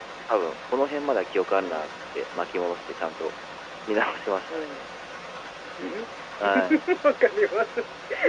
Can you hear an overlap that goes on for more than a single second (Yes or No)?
No